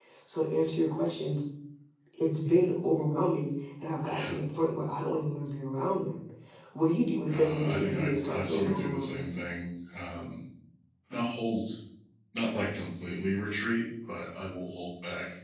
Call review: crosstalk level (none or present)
present